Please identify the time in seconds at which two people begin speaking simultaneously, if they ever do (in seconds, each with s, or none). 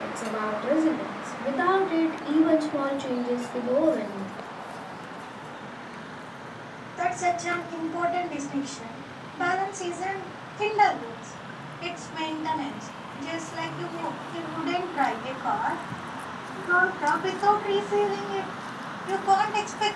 none